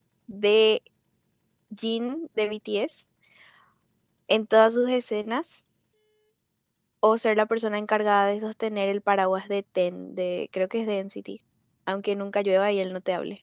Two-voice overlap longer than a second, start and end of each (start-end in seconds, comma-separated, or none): none